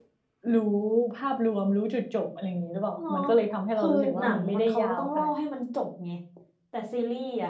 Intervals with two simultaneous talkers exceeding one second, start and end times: 3.8-5.3

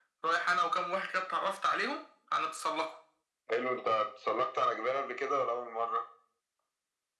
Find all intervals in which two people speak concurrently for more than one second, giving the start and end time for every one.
none

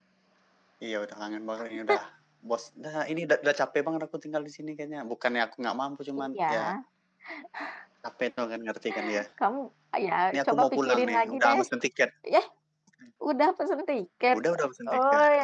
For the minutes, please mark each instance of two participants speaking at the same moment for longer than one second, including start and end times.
10.3-11.6

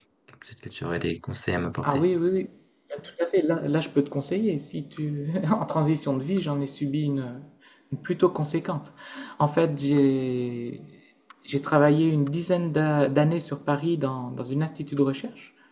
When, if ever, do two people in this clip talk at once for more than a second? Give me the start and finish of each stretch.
none

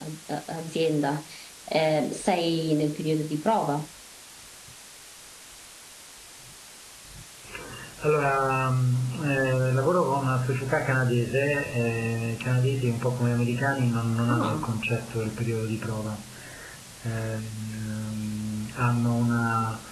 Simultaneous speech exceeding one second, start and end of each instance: none

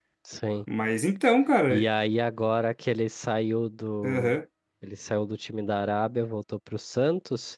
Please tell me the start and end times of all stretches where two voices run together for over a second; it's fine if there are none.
none

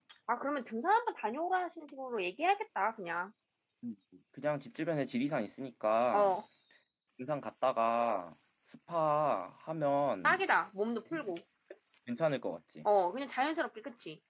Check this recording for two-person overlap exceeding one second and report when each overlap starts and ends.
none

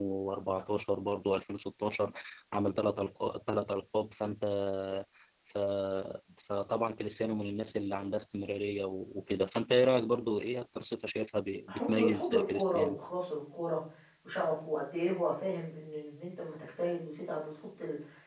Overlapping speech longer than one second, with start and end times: 11.7-13.0

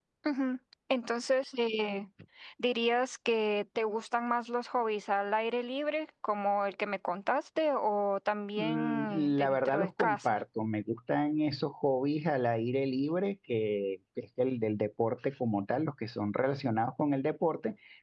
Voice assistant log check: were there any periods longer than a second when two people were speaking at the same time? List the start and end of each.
8.6-10.4

